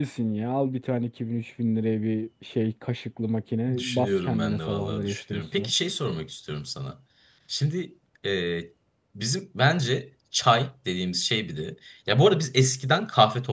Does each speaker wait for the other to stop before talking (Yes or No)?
No